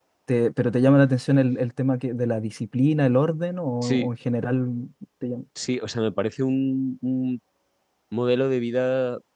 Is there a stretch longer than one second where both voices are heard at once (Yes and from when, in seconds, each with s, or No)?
No